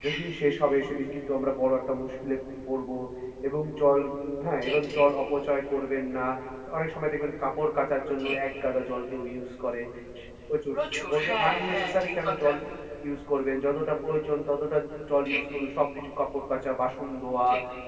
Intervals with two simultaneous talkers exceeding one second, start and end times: 10.7-12.5

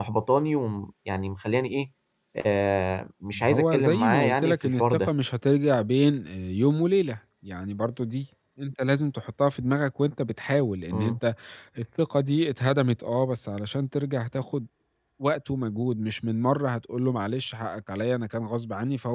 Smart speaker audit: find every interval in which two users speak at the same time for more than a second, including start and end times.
3.5-5.1

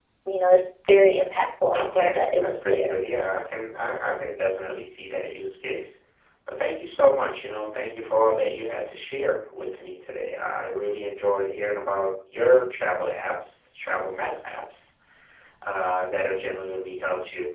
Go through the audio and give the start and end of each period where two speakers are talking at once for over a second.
1.7-3.0

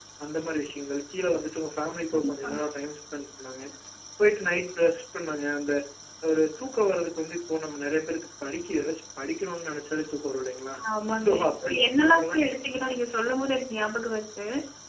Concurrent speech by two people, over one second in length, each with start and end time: 11.2-12.4

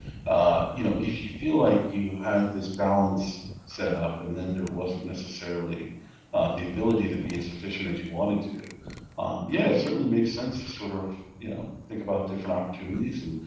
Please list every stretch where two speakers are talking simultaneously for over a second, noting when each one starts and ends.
none

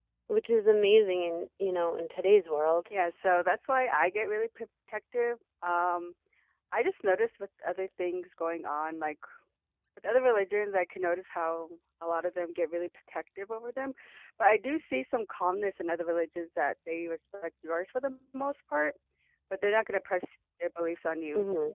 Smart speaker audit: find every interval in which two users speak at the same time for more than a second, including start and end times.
none

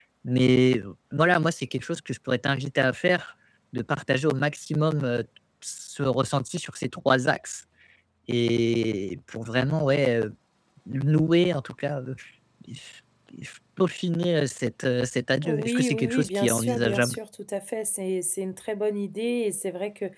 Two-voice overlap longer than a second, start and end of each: 15.4-17.2

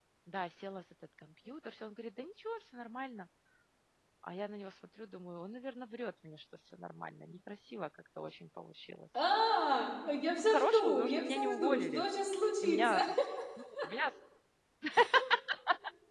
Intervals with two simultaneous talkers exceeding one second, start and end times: 10.5-12.0

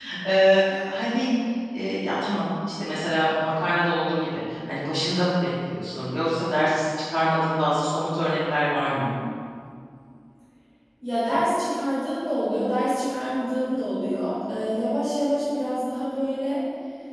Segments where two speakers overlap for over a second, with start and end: none

